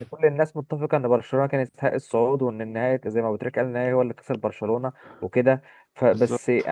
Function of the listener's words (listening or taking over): listening